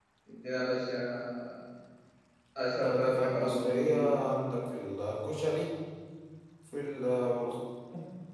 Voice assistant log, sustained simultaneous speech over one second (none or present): present